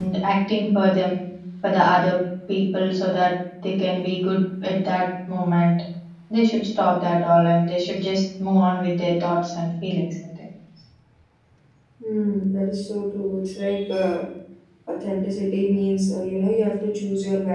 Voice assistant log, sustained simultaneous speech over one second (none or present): none